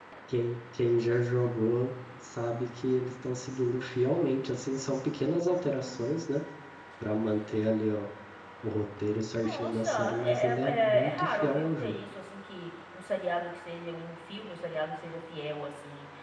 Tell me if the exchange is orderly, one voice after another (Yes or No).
No